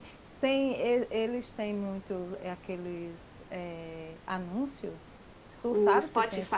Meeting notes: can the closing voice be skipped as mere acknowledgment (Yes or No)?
No